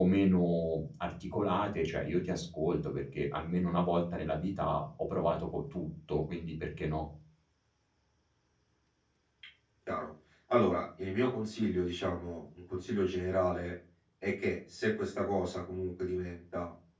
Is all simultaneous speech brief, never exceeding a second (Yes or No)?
Yes